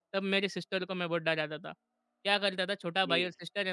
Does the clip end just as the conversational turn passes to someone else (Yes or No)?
No